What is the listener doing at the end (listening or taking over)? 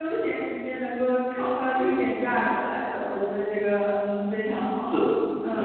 taking over